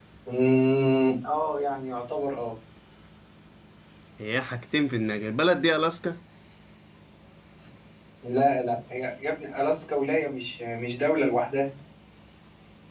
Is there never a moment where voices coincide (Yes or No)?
Yes